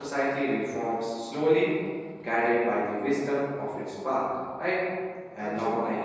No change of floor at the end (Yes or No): Yes